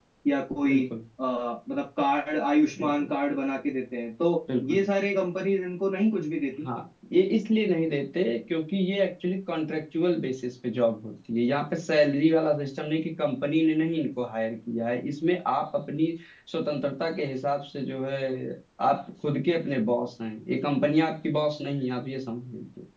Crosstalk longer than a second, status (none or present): none